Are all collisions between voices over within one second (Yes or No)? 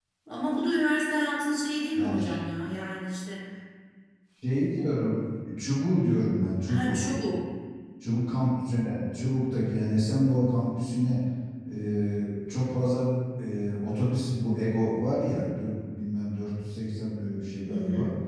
Yes